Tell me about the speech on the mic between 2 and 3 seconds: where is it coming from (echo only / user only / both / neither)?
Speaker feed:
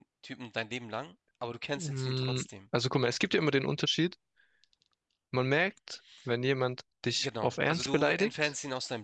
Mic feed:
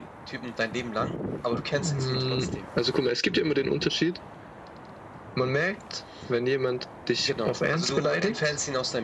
echo only